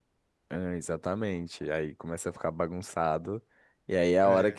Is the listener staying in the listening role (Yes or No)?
Yes